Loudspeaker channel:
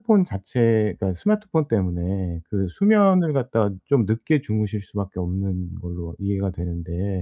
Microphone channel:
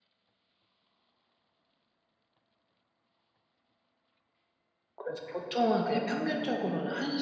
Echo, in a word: none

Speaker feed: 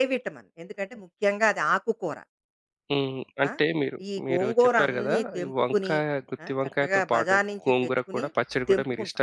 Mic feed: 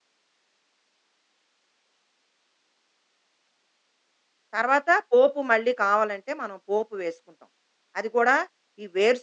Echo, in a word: none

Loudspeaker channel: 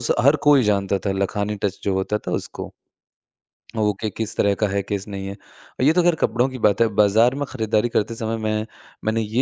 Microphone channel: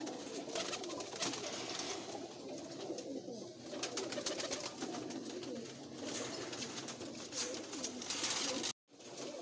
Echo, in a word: none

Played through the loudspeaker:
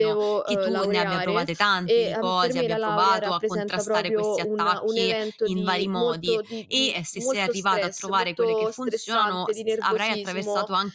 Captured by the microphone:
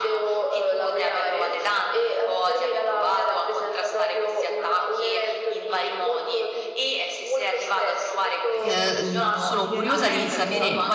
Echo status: present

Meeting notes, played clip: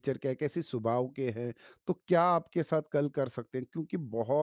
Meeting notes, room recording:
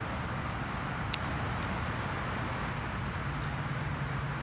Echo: none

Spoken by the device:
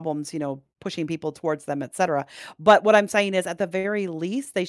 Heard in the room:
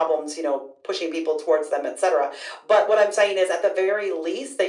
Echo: present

